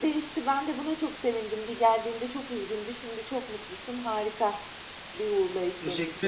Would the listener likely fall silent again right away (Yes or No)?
No